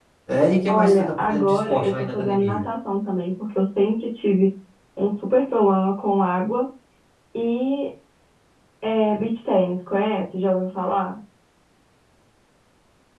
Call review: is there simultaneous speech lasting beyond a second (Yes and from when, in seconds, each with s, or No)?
Yes, from 0.7 s